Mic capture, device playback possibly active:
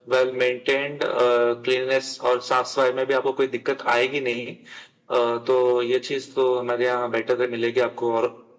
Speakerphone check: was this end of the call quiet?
Yes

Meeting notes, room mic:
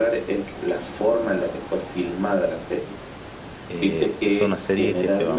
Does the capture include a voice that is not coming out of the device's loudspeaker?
Yes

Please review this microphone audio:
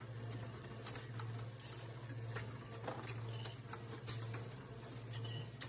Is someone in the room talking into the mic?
No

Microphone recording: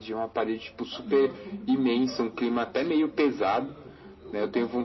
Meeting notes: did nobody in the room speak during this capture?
No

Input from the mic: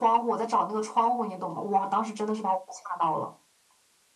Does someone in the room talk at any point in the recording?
No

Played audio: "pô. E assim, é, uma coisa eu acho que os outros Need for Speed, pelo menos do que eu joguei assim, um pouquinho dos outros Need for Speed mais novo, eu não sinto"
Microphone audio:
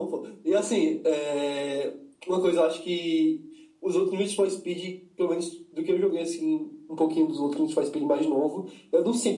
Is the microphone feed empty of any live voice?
Yes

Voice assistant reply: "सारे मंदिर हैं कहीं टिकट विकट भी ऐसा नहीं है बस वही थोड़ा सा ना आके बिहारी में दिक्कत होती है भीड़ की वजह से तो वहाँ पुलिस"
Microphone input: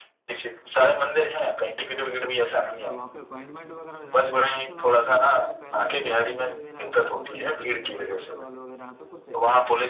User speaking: Yes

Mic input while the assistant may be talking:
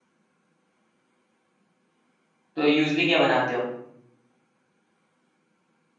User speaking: Yes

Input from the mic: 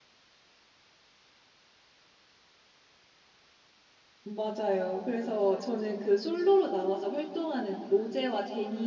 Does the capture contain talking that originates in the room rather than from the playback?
Yes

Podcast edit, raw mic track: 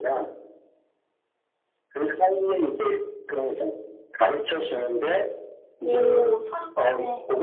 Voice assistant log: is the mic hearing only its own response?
No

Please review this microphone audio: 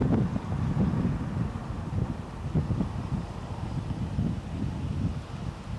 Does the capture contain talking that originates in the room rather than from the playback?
No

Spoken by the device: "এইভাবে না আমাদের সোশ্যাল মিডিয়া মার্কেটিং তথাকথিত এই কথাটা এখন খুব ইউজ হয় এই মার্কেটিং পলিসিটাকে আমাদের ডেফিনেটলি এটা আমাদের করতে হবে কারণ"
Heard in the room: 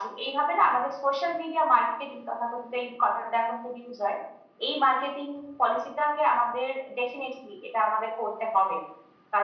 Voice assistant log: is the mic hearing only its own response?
Yes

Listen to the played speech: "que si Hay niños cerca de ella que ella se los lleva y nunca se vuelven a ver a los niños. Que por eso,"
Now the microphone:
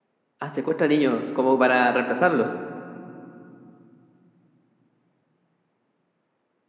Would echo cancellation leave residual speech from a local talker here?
Yes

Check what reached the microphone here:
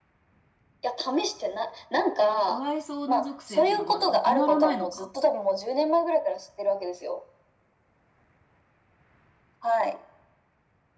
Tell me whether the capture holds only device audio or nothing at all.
No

